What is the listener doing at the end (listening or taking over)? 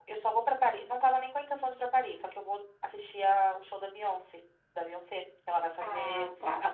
listening